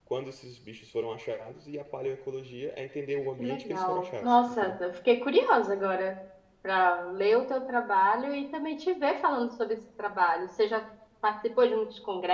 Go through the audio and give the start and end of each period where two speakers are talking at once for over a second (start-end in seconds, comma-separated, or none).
3.4-4.8